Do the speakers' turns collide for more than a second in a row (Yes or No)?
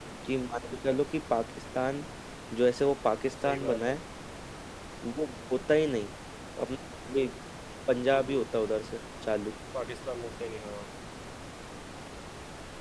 No